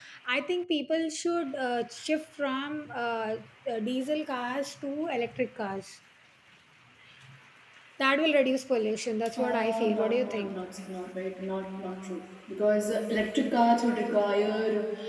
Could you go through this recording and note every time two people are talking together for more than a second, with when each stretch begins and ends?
9.4-10.6

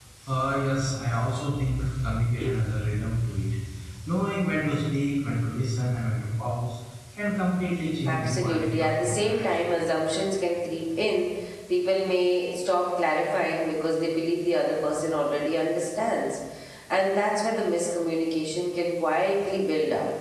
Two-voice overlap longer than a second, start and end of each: 8.0-9.7

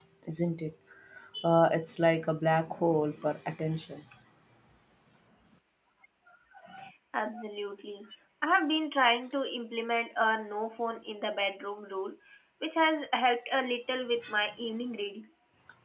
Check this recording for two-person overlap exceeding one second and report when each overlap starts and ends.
none

